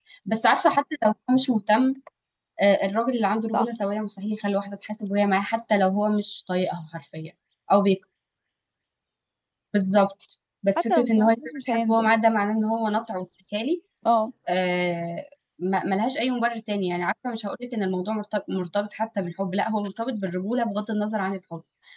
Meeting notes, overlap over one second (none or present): present